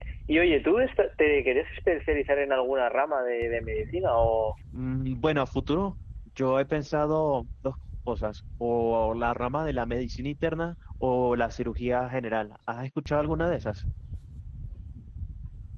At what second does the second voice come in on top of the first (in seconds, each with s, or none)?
none